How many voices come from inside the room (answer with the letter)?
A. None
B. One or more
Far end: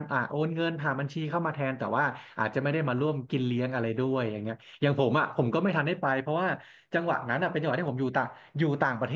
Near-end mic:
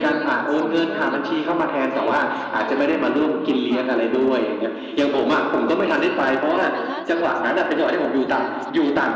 B